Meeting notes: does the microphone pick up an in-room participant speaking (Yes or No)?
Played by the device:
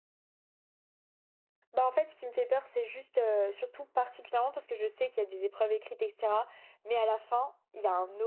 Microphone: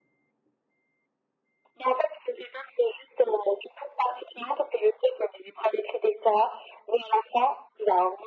No